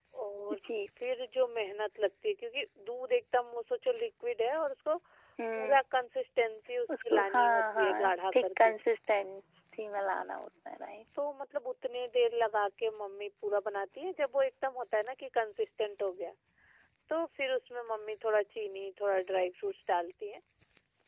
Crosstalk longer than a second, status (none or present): present